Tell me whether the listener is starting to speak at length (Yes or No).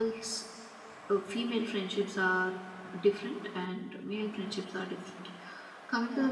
No